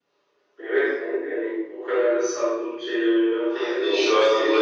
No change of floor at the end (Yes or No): No